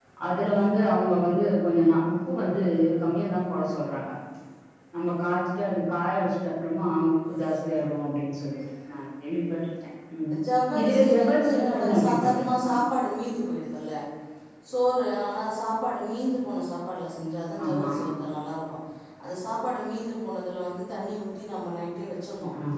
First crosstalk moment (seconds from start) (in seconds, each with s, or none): 10.8 s